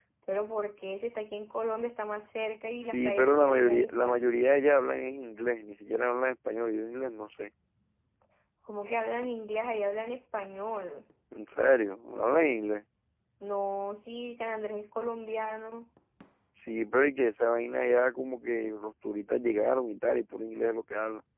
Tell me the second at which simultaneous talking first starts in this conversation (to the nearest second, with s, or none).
3 s